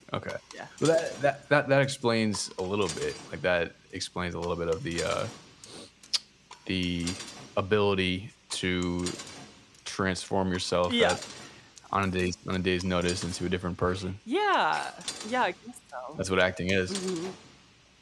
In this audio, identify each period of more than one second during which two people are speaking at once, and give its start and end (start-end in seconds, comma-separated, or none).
none